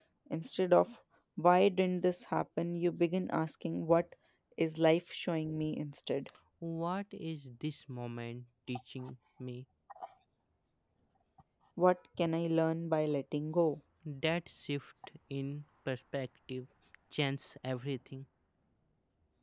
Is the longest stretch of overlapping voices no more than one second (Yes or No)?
Yes